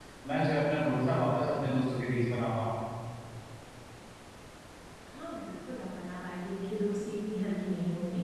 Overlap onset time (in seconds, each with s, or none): none